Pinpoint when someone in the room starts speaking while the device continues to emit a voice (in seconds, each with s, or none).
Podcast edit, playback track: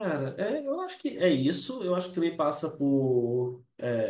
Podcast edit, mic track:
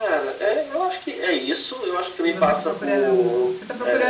2.2 s